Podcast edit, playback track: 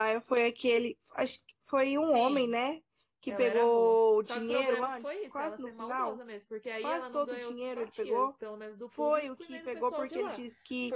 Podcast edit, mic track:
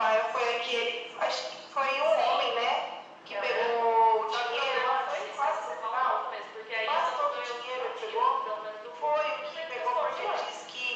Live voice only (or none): none